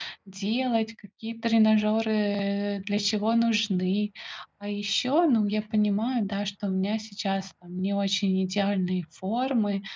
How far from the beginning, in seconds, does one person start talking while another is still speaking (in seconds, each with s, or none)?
none